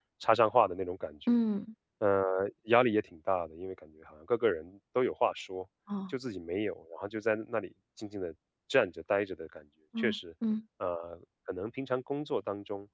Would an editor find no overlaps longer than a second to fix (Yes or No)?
Yes